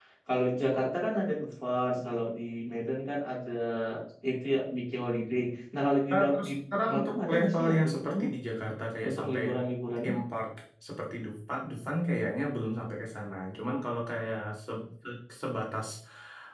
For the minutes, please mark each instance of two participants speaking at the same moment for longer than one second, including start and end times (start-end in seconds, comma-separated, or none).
6.9-8.3